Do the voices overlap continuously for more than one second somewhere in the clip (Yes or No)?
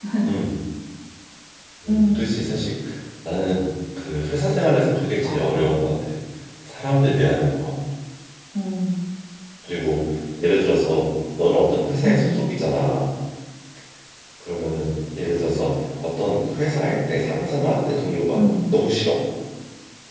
No